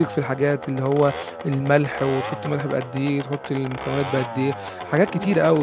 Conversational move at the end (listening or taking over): taking over